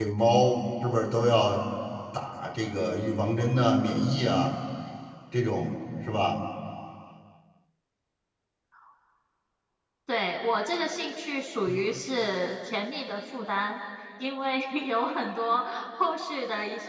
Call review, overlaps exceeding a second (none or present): none